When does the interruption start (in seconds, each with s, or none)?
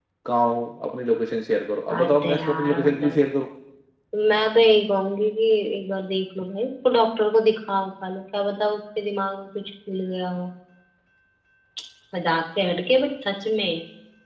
1.9 s